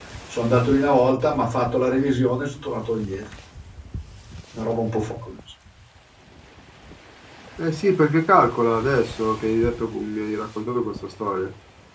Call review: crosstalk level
none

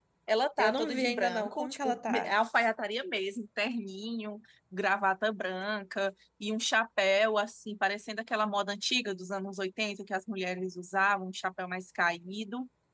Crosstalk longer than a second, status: present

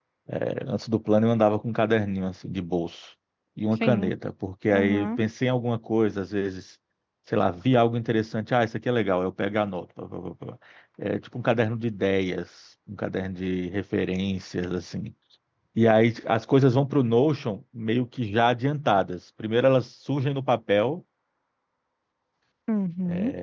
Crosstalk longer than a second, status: none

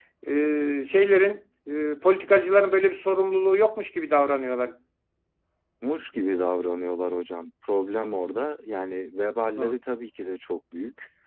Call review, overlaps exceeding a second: none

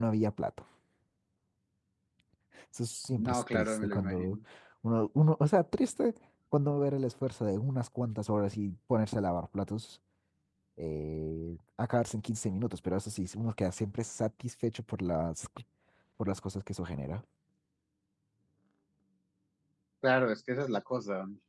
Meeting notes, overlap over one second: present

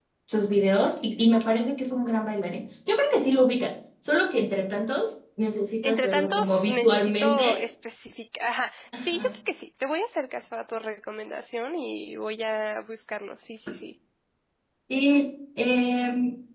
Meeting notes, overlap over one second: present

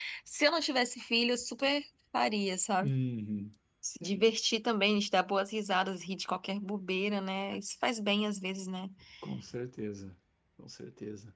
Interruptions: none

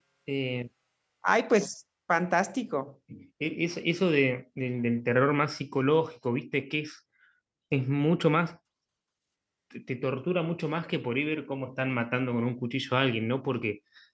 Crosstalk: none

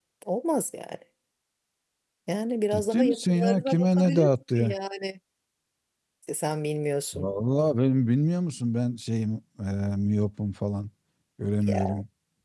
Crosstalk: present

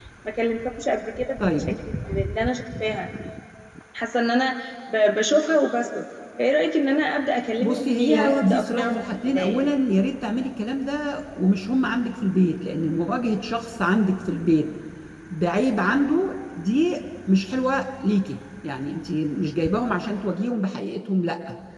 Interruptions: present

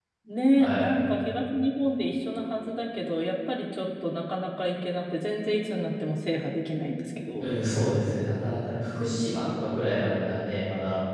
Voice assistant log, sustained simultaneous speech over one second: none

